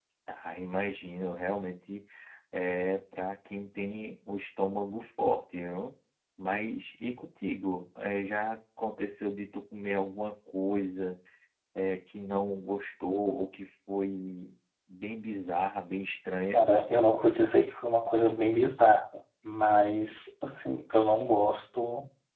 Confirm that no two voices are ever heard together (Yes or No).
Yes